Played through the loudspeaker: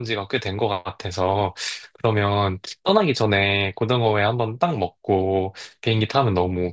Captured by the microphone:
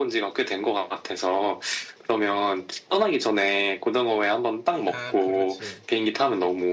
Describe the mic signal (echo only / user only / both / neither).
both